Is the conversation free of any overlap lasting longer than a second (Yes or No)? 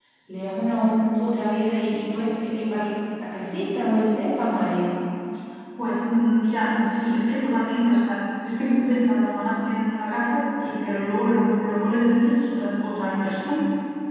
Yes